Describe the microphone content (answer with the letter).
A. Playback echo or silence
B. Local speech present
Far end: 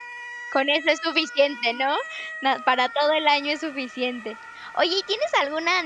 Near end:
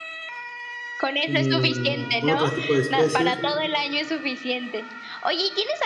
B